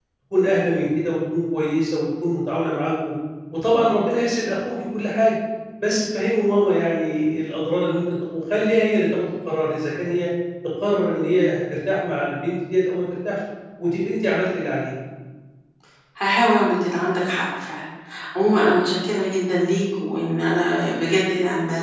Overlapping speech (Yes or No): No